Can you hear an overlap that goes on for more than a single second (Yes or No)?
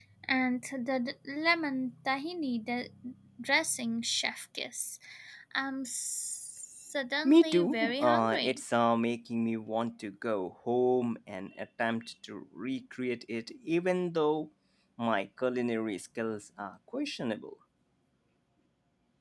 Yes